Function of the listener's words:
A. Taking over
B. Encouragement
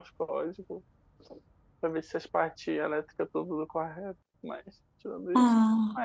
B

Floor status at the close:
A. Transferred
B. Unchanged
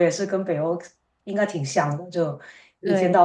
B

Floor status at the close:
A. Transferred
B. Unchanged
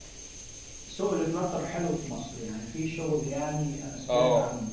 A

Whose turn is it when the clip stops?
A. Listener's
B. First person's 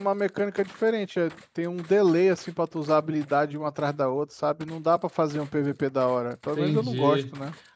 A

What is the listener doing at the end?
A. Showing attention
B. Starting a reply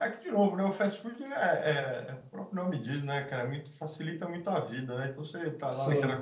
A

